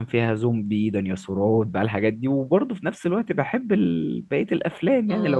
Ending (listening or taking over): listening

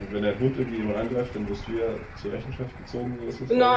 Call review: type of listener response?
taking over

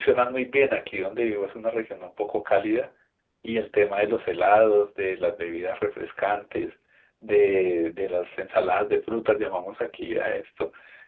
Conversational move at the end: listening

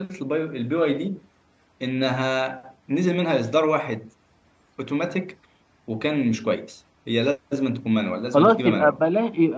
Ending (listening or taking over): taking over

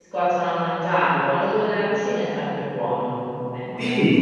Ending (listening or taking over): taking over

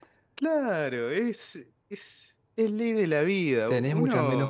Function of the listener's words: taking over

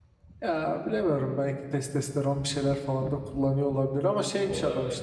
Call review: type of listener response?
listening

